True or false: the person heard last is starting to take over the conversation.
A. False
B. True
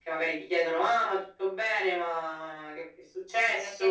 B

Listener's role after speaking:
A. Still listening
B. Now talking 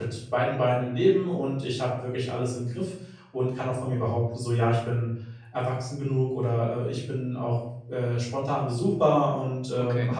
A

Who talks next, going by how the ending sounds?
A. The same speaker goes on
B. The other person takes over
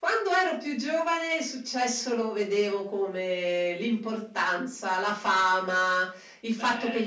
A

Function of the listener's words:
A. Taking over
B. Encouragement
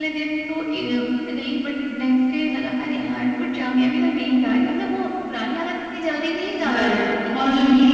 A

